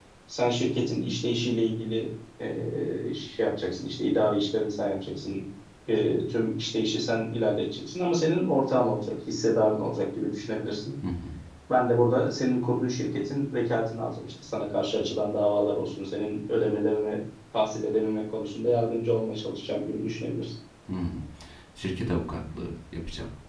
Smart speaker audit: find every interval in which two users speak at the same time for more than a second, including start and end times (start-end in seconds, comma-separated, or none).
none